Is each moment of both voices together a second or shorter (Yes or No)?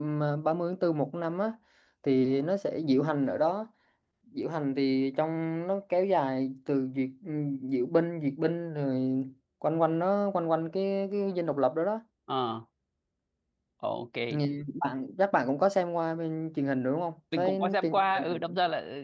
No